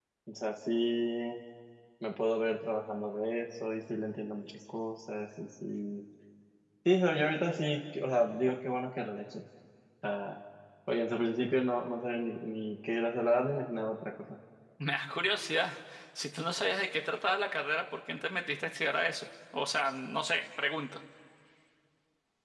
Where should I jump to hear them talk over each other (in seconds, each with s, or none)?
none